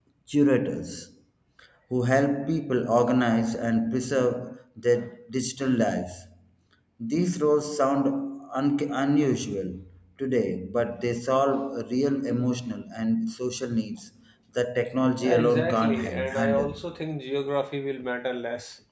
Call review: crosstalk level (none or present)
present